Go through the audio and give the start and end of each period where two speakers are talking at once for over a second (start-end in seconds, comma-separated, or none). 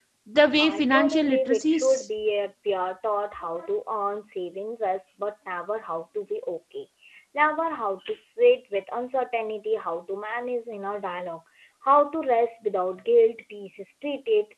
0.6-2.1